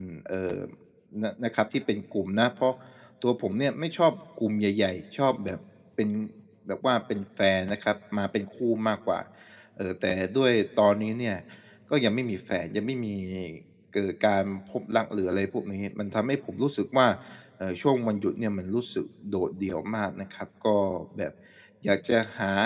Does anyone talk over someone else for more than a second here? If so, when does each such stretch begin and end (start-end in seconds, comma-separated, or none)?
none